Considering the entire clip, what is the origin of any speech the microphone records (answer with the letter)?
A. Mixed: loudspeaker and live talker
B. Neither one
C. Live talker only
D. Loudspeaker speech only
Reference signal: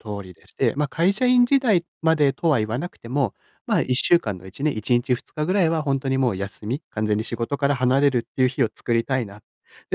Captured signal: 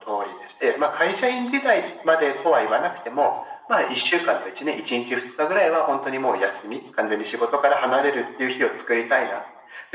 D